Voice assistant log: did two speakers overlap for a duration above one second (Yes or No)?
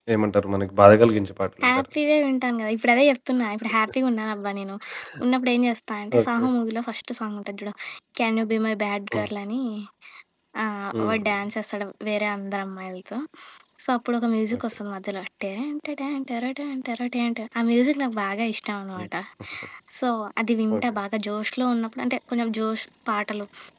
No